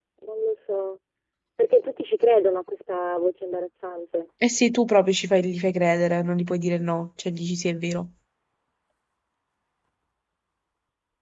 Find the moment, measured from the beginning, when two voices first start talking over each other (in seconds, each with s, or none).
none